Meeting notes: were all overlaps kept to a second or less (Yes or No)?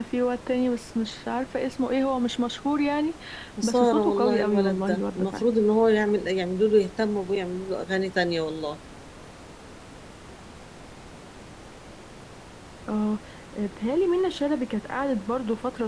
No